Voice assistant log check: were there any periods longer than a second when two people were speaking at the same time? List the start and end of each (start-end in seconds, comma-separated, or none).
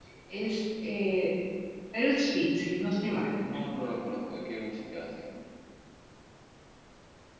none